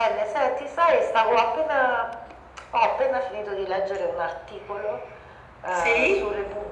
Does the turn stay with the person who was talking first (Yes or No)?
Yes